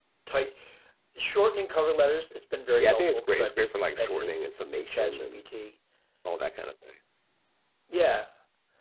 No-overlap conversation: No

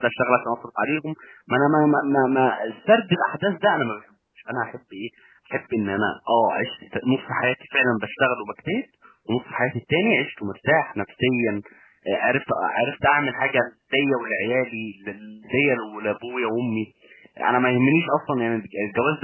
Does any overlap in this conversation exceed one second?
No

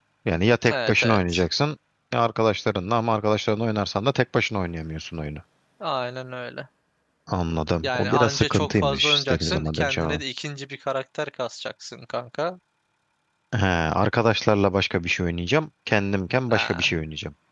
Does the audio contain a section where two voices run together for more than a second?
Yes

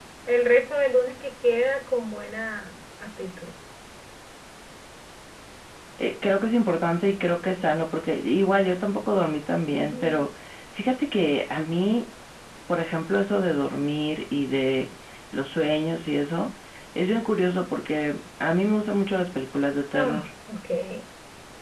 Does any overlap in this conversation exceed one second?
No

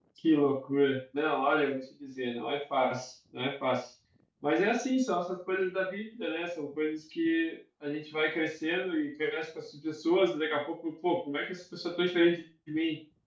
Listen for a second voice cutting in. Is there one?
No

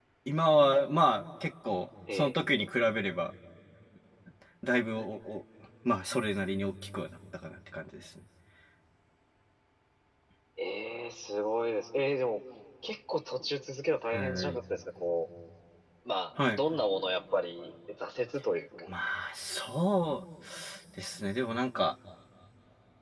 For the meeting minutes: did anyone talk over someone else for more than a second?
No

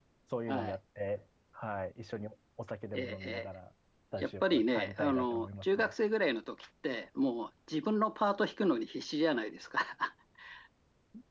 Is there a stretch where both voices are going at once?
Yes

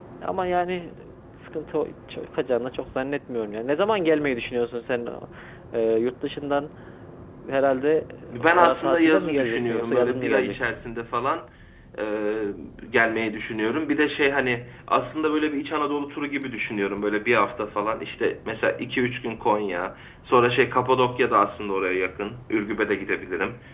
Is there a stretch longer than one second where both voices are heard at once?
Yes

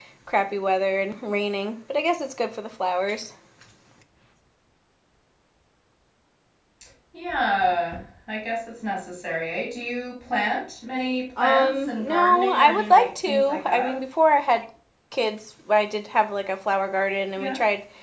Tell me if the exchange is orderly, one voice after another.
No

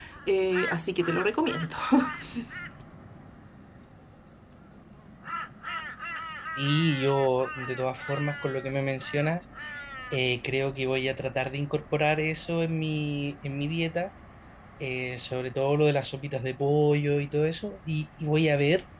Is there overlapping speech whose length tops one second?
No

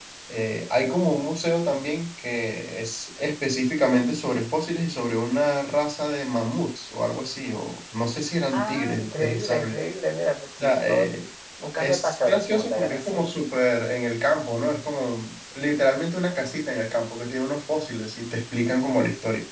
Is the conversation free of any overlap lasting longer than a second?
No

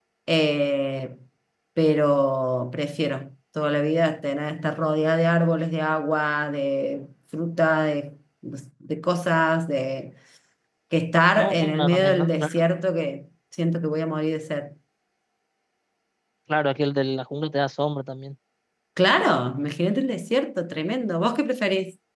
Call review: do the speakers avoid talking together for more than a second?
No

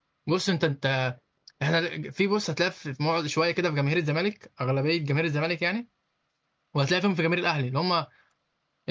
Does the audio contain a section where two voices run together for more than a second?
No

